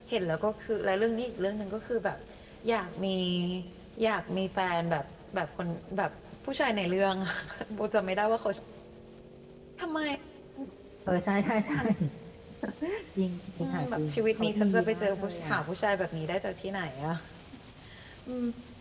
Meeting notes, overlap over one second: present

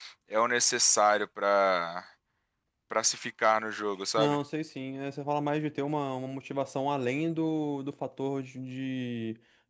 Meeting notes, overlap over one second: none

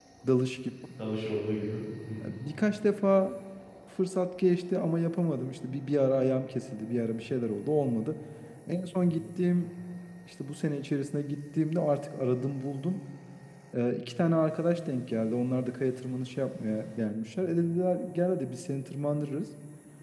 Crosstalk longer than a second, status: none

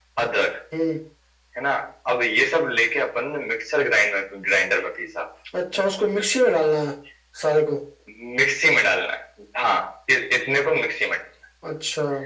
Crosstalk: none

